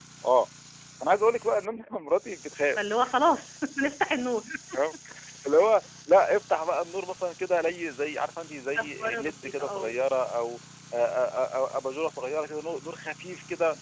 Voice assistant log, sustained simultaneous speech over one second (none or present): present